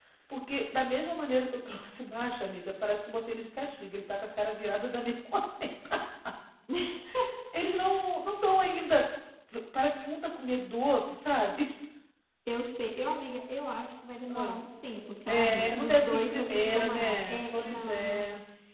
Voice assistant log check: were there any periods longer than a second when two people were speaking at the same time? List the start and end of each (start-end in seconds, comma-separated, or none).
15.3-18.2